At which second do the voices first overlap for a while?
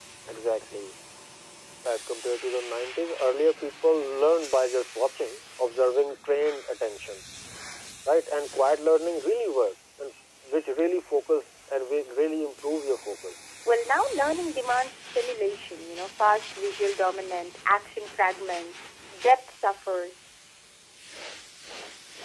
none

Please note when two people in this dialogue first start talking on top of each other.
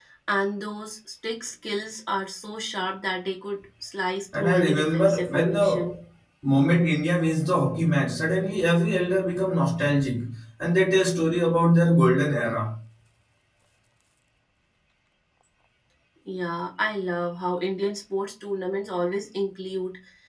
4.3 s

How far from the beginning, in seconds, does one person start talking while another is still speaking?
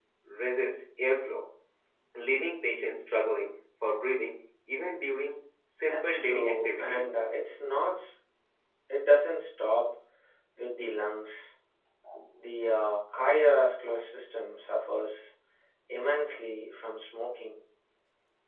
5.8 s

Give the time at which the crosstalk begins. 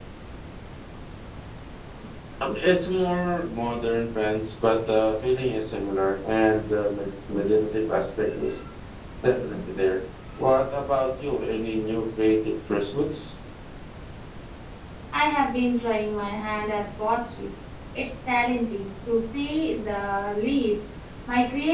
none

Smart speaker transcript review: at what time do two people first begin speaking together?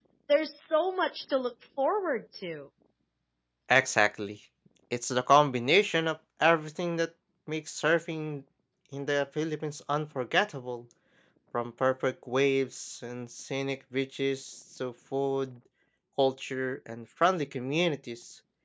none

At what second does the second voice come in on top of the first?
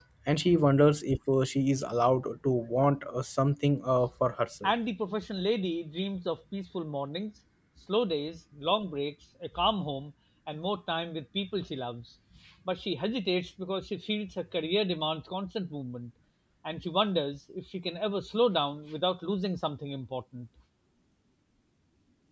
none

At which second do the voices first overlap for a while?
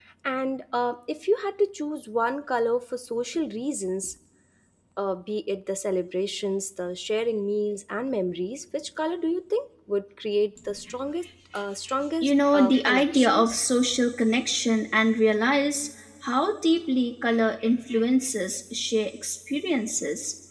12.2 s

